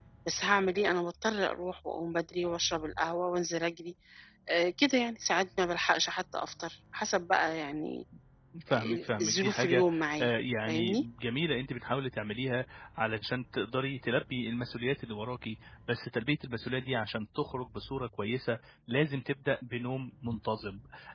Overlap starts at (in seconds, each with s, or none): 8.7 s